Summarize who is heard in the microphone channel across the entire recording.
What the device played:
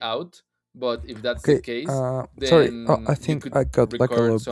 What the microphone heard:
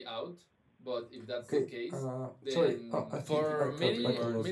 both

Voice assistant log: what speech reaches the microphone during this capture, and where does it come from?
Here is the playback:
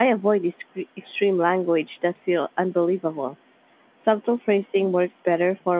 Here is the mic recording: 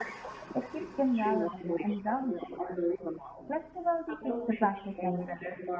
both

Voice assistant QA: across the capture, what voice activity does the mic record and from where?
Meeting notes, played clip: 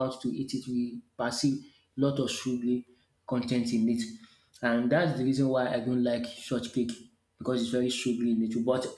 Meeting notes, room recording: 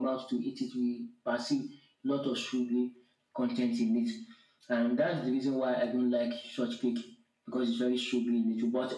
echo only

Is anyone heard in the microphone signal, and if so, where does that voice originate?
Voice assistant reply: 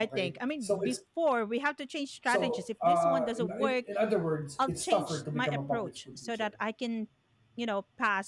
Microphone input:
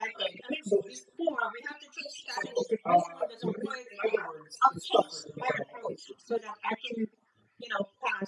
echo only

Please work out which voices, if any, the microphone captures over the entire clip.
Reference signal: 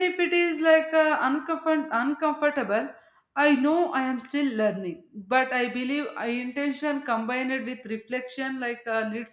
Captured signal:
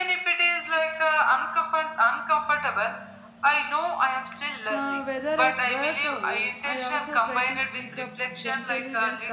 both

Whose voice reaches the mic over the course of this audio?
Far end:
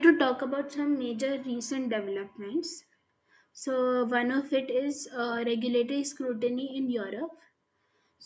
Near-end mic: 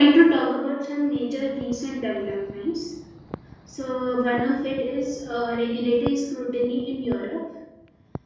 echo only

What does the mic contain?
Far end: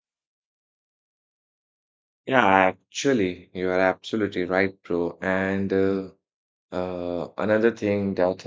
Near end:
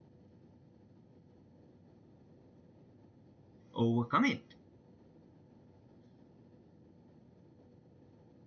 user only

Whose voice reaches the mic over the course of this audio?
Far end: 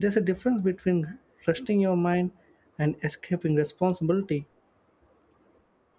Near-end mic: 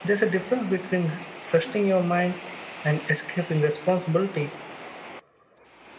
echo only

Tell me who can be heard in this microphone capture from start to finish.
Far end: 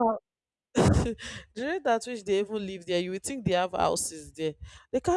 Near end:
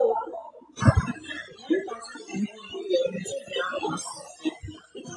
echo only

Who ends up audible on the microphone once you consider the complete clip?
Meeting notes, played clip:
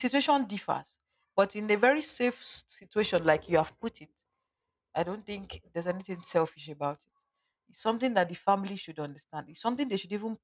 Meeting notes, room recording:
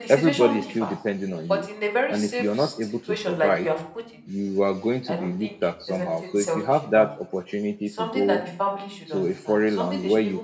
both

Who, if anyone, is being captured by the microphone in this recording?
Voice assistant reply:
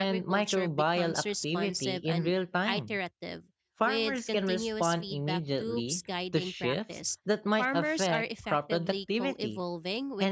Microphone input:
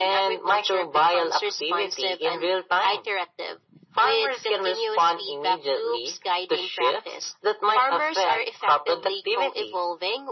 echo only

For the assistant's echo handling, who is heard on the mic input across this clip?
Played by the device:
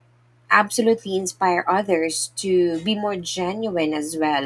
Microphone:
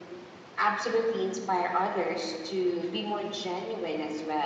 echo only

